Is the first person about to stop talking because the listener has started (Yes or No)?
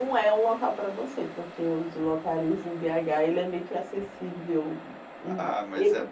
Yes